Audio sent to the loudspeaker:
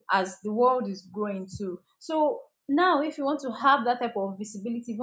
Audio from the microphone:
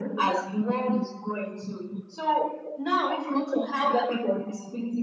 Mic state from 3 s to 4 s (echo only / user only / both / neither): echo only